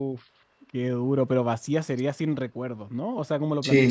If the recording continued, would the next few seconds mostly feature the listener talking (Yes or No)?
Yes